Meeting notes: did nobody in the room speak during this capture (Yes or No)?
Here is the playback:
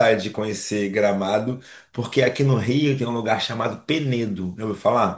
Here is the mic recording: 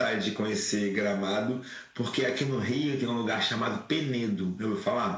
Yes